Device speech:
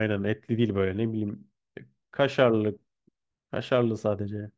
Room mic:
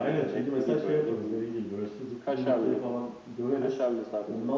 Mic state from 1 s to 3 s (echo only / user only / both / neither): both